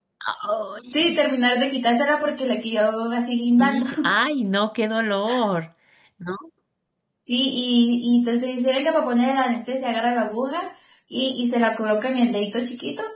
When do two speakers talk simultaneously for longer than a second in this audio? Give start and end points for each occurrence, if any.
none

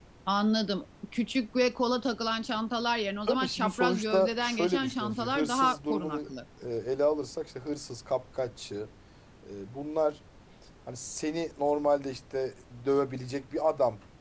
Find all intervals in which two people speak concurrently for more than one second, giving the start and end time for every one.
3.3-6.2

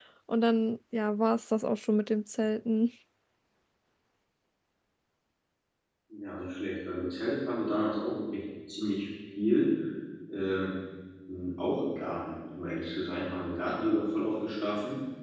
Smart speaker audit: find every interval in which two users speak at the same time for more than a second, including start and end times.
none

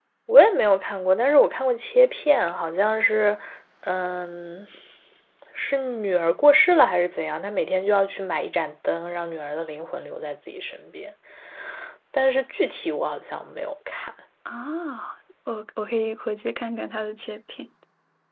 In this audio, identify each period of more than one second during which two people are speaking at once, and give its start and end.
none

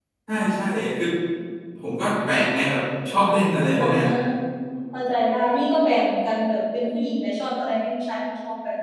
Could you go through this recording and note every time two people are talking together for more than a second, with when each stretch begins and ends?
none

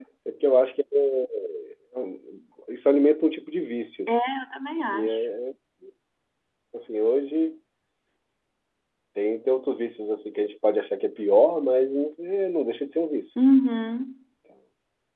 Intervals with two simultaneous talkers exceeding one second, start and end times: none

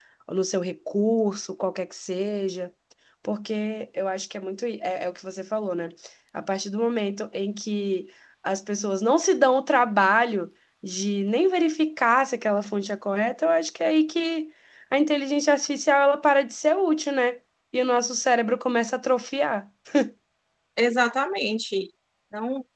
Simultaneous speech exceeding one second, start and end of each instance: none

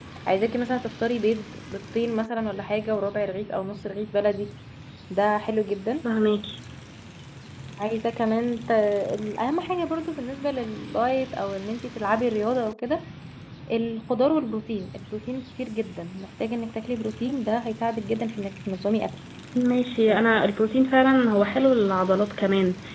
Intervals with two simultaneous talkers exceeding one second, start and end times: none

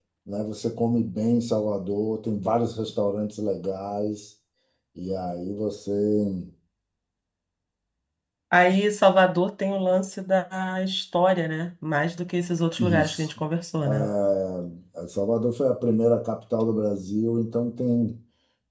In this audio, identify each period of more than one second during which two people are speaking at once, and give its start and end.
none

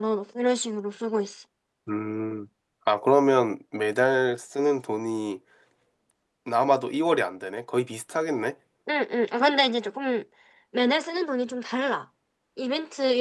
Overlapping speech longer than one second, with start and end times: none

